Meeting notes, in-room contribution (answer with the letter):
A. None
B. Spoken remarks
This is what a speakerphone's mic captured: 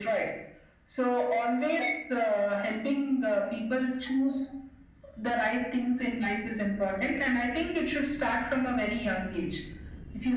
A